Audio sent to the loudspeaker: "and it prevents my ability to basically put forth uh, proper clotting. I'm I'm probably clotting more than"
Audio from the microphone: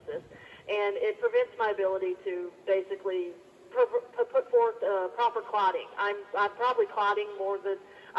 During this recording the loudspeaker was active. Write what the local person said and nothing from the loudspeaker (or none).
none